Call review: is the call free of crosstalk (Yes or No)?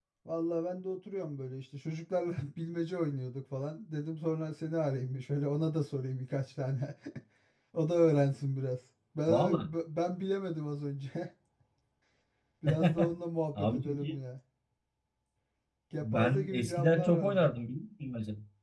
No